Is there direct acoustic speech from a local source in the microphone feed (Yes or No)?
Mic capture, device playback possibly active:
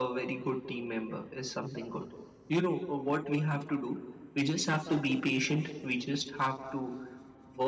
No